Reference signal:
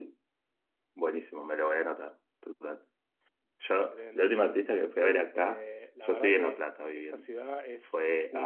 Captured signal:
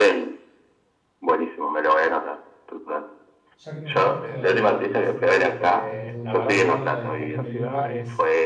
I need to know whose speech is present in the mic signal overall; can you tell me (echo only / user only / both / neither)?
both